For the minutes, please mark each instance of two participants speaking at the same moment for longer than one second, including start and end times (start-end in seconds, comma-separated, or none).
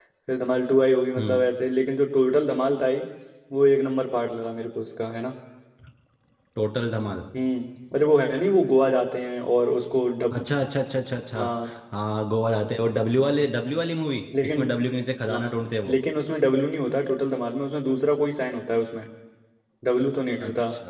none